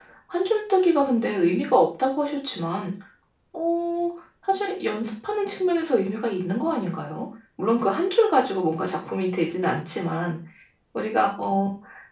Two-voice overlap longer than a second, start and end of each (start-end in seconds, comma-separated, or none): none